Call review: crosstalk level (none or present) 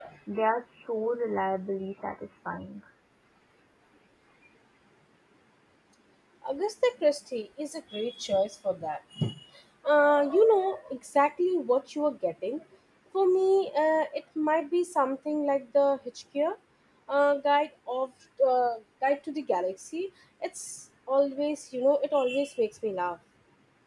none